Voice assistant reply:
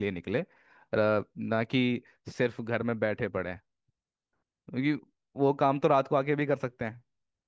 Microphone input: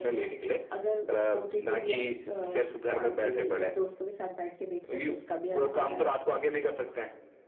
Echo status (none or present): present